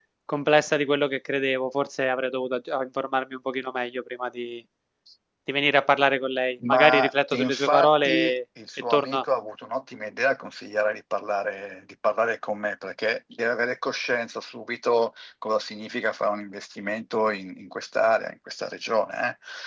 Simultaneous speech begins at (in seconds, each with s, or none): 6.6 s